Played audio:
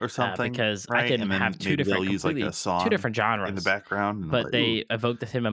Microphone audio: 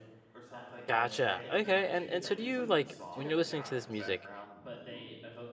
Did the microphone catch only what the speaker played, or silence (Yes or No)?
No